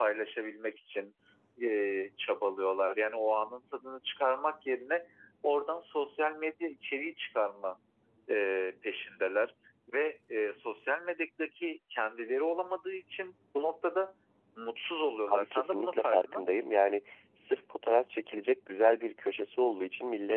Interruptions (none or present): present